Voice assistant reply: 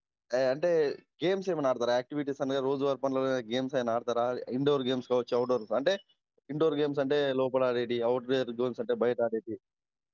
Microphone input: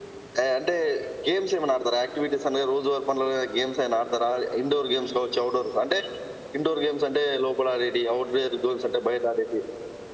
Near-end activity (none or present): none